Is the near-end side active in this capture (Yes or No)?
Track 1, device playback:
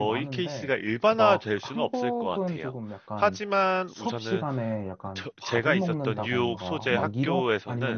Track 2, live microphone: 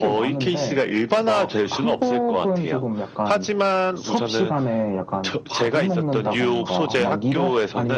No